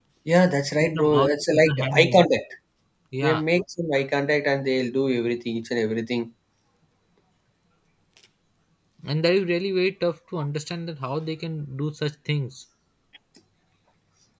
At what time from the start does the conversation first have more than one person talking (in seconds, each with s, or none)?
0.8 s